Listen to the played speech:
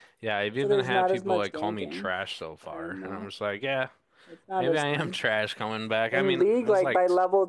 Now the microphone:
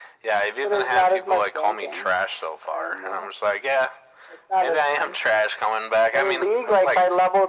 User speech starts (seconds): none

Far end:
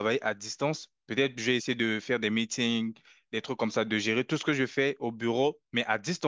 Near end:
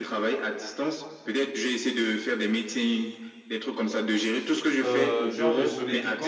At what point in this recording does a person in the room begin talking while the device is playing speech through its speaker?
5 s

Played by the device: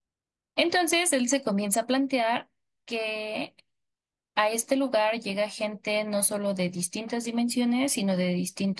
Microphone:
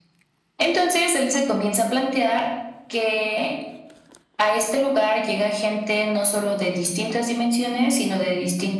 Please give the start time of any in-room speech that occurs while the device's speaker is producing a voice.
none

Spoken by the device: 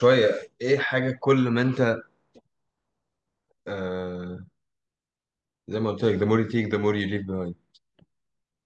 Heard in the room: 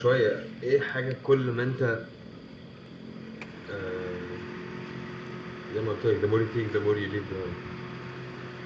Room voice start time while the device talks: none

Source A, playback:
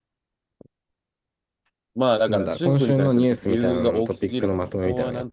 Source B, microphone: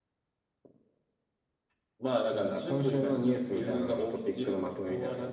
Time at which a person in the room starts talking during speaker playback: none

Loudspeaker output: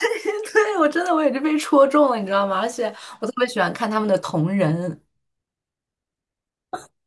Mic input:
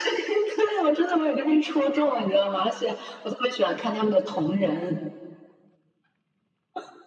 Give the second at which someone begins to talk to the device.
none

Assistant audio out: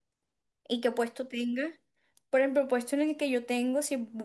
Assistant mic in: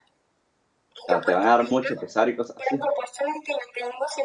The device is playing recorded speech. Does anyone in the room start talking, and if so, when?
1 s

